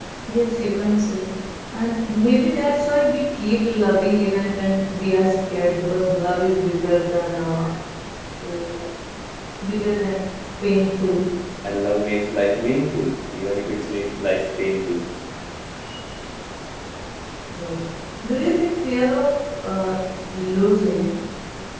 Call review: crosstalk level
none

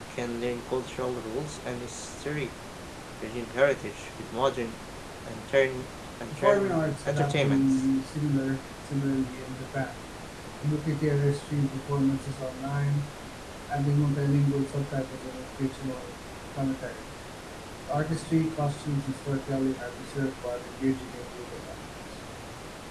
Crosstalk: present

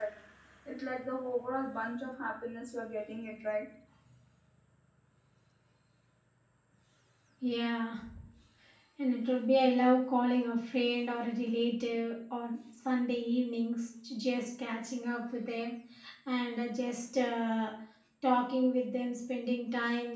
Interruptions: none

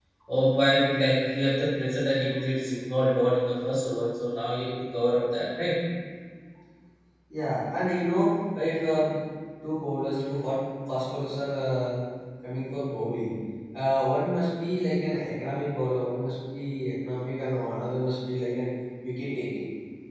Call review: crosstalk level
none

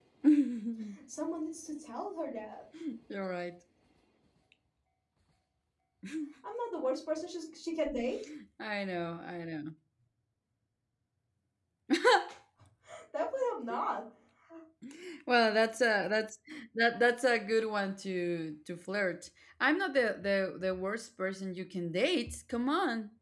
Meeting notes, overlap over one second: none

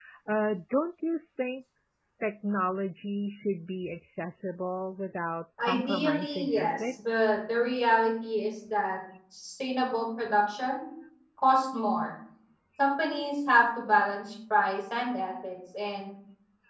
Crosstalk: present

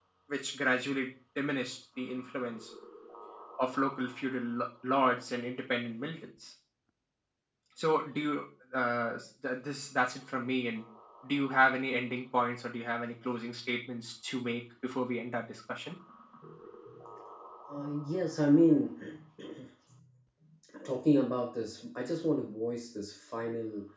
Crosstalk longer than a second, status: none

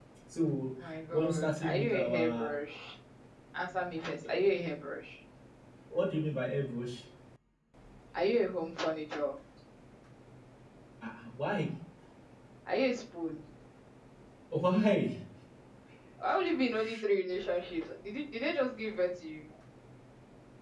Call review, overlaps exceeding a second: present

